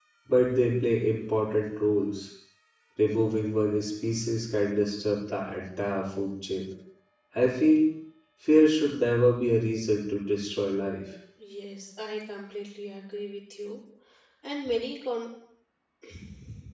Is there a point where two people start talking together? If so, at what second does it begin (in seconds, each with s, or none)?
none